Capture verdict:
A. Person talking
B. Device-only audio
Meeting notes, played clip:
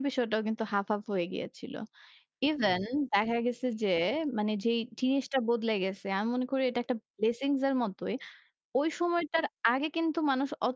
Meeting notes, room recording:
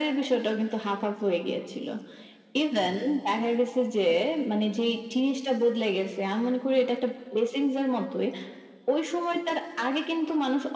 B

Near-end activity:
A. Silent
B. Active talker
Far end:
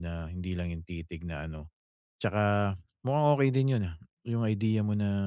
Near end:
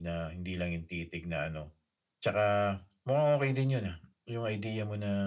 A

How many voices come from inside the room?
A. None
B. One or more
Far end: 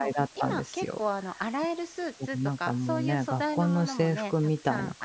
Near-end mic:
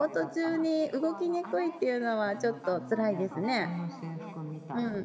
B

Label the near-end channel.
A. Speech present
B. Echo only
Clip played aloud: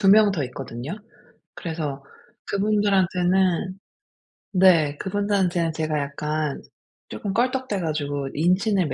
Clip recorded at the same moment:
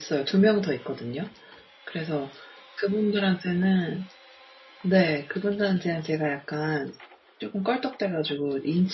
B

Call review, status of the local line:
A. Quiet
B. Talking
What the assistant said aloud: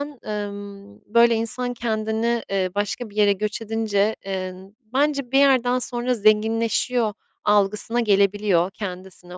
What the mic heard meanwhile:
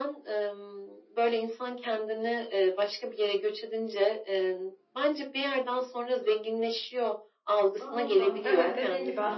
B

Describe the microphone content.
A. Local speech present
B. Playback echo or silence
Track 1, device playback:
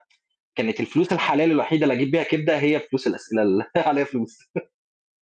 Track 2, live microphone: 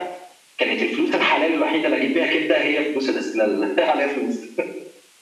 B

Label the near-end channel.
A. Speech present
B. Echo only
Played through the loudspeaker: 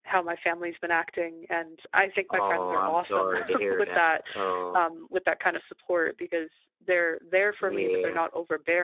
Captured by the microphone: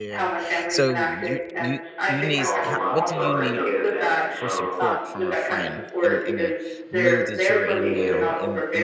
A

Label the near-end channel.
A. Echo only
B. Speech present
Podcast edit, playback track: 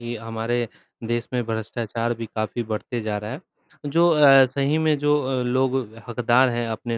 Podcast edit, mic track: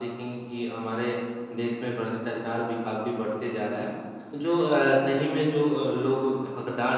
A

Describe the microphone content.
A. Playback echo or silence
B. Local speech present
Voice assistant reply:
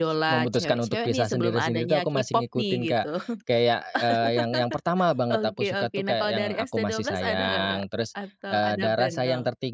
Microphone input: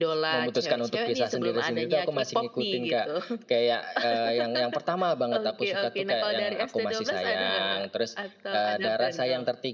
A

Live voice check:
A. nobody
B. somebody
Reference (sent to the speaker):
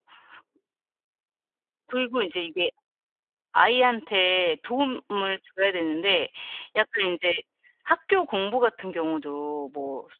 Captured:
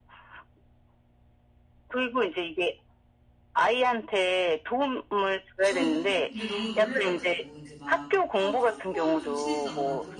B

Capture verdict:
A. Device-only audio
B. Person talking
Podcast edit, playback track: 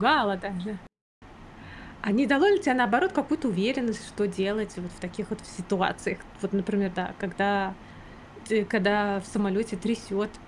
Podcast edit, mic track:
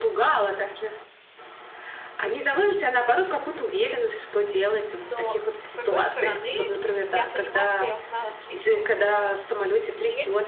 B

